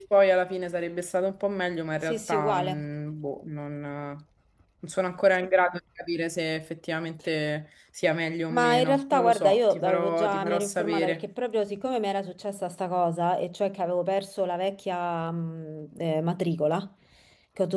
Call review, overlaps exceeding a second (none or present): present